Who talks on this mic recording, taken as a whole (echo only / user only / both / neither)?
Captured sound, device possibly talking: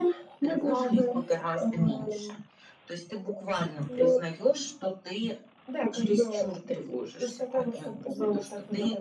echo only